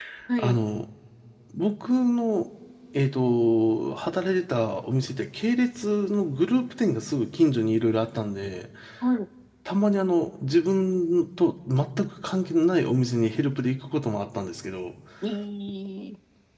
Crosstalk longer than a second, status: none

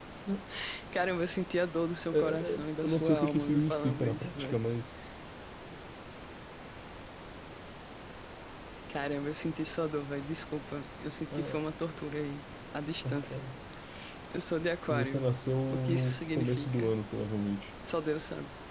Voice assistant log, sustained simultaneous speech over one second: present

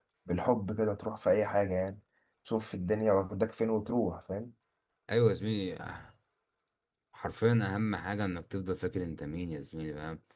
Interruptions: none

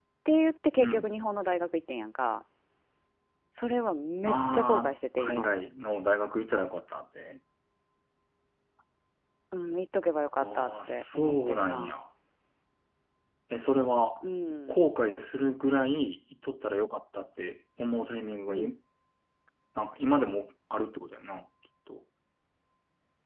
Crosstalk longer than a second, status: present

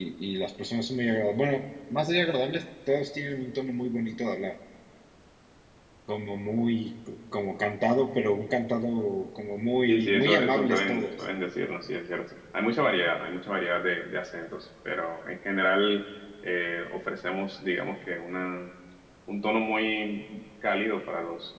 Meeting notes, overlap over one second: present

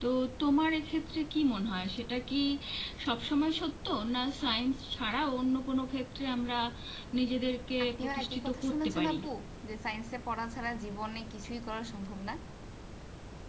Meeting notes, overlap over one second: present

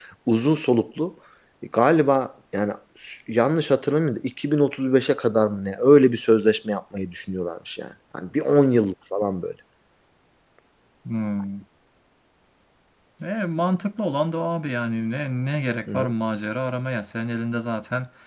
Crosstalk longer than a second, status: none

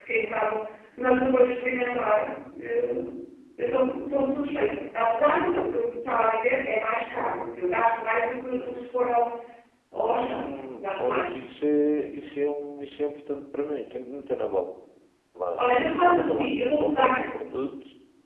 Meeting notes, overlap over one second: present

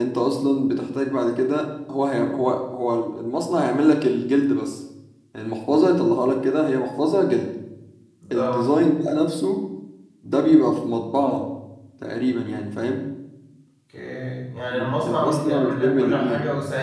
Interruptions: present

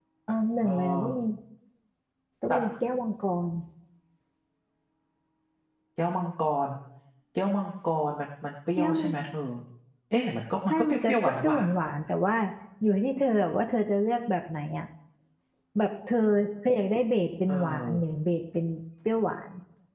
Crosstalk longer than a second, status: present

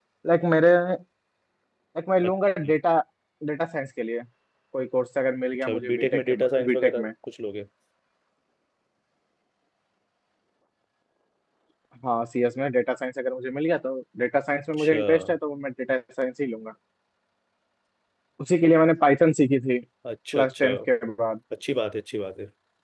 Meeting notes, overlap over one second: present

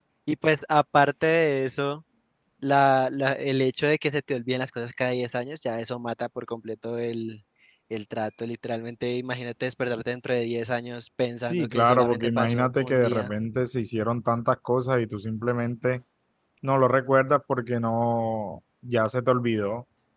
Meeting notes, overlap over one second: present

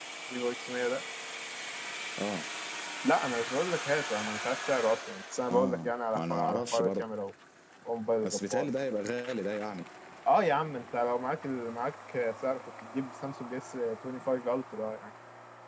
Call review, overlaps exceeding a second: present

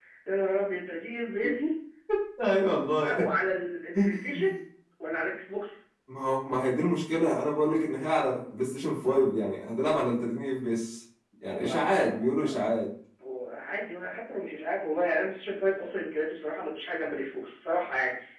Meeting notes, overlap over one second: present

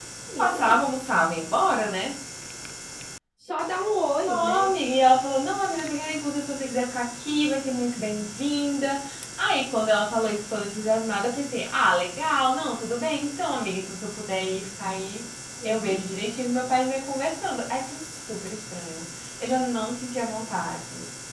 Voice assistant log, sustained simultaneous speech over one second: none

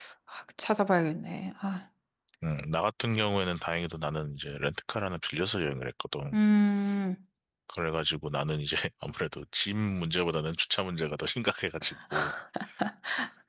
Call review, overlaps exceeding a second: none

